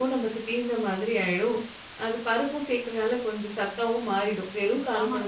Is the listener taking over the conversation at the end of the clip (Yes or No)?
Yes